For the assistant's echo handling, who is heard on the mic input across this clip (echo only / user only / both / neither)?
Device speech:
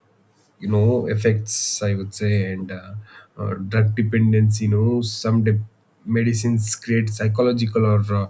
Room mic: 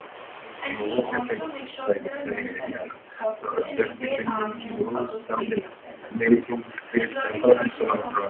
both